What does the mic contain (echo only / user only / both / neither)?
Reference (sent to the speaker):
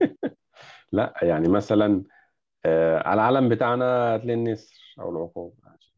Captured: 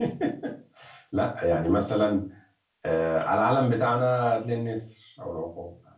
echo only